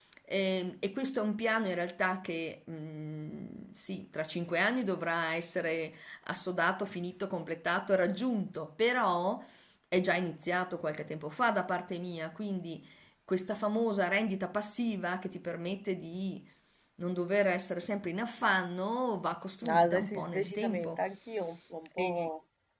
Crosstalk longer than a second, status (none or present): present